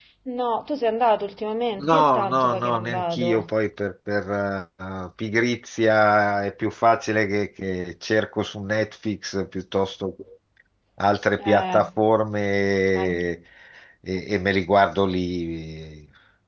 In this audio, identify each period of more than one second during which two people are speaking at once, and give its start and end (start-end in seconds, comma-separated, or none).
1.8-3.4